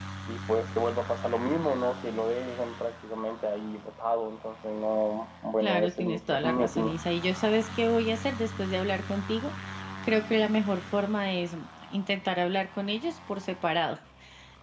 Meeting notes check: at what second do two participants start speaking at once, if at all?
5.6 s

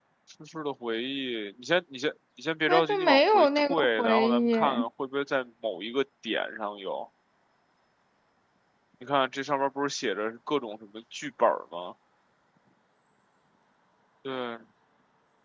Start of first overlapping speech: 2.7 s

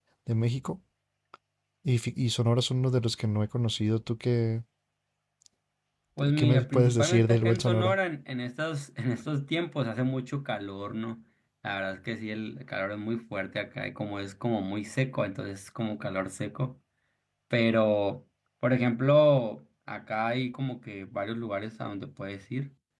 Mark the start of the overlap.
6.4 s

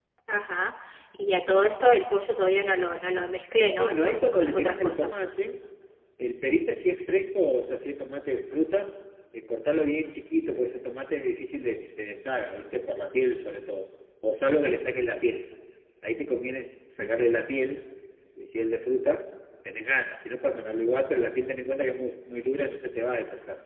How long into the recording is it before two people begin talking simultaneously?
3.8 s

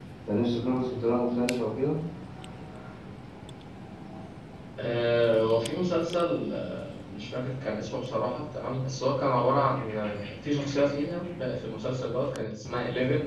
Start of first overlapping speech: none

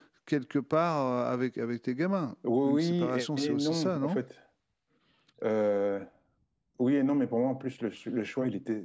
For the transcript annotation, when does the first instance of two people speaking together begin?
2.4 s

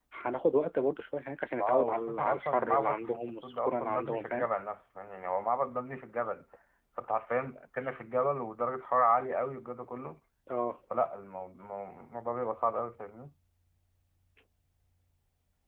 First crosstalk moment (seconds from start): 1.6 s

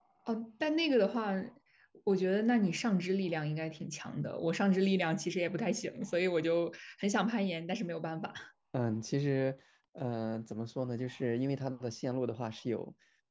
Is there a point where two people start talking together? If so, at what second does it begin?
none

